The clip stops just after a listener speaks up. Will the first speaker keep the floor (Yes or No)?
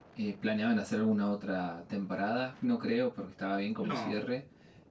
Yes